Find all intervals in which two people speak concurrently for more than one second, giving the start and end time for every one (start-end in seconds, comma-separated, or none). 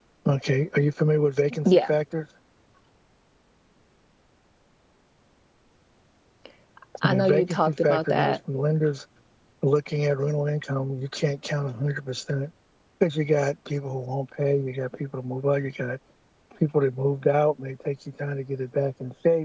7.0-8.4